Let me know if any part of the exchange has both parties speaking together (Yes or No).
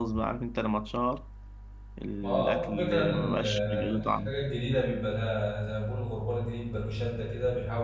Yes